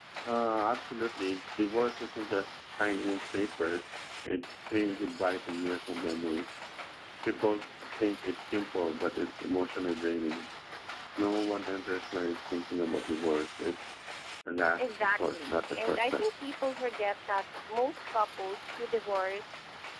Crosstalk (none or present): present